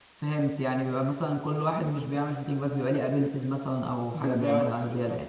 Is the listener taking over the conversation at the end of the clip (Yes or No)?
Yes